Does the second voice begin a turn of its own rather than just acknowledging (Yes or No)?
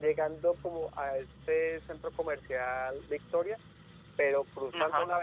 No